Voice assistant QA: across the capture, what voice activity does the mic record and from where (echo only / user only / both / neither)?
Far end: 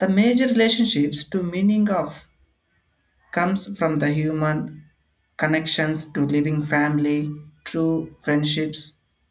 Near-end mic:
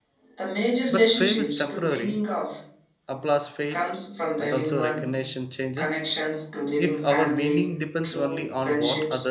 both